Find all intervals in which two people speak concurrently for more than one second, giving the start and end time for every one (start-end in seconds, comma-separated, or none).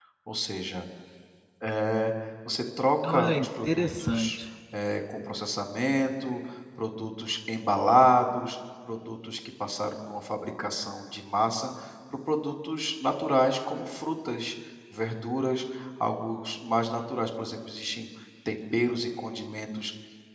3.1-4.3